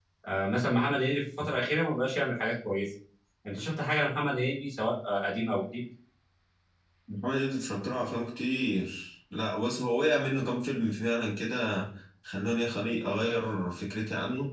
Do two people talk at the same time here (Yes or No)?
No